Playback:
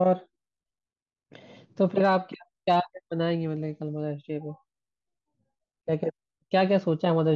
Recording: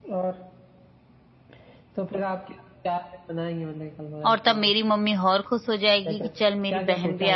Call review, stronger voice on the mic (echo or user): user